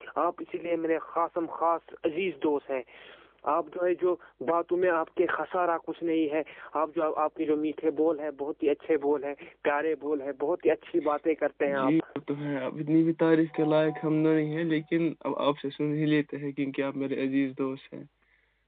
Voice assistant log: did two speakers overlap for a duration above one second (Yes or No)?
No